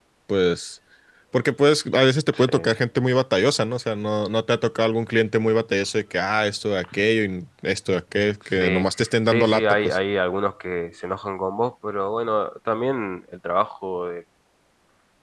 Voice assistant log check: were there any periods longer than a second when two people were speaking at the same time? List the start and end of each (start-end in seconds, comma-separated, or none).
8.6-10.0